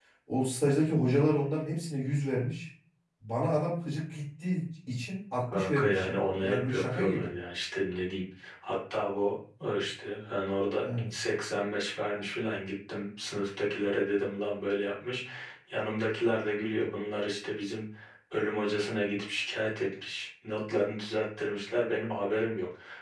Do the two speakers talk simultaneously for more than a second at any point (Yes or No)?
Yes